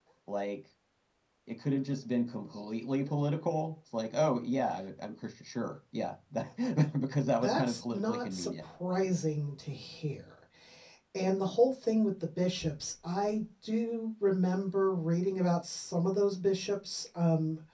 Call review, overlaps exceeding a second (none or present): present